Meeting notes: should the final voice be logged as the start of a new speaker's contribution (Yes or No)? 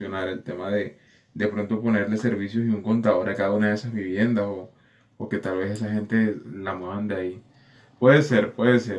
No